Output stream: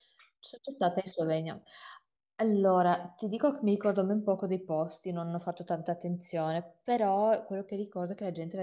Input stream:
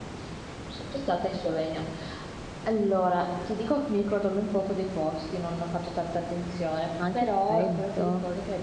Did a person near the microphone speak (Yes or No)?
Yes